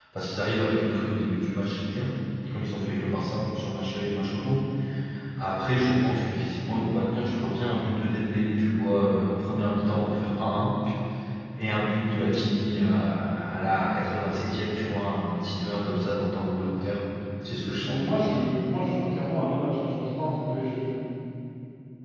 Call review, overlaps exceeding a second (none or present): none